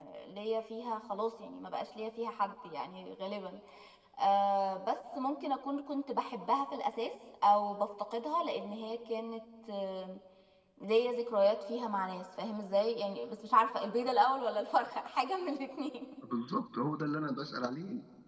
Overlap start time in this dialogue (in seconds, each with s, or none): none